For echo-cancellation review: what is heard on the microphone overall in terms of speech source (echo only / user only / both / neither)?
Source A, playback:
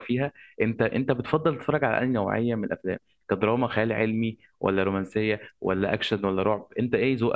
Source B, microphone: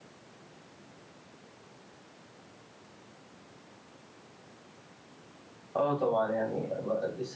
user only